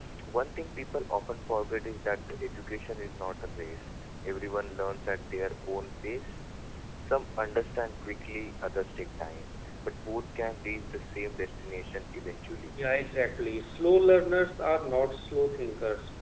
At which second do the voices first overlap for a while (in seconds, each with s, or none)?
none